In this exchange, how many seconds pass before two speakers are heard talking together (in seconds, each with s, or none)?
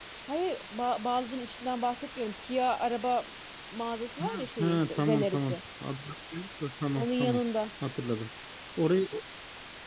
4.2 s